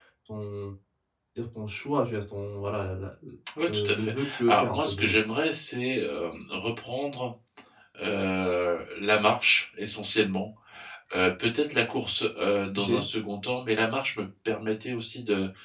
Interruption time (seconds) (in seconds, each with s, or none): 3.7 s